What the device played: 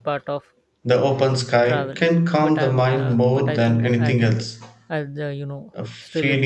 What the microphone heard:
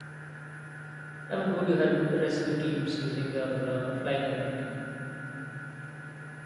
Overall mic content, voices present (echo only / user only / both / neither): user only